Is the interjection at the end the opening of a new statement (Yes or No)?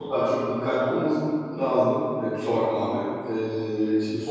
No